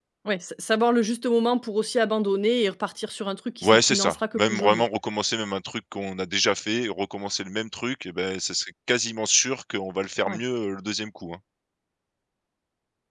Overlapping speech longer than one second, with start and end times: 3.6-4.8

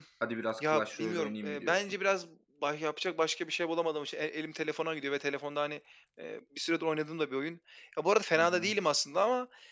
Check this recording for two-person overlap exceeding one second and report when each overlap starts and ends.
0.6-1.9

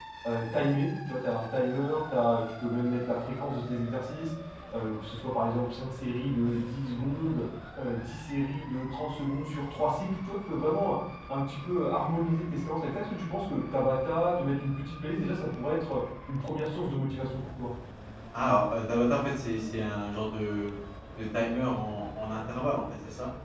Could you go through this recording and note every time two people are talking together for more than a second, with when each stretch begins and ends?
none

